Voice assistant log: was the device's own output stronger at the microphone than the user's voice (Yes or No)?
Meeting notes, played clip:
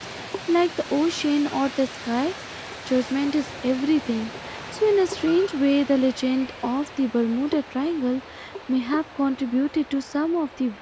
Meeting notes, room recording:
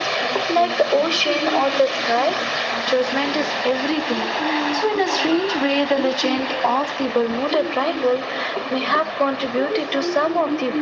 Yes